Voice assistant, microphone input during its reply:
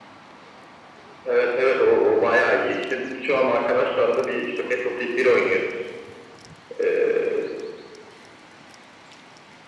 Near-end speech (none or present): none